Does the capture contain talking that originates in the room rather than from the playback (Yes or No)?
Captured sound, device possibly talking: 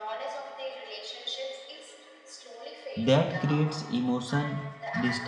Yes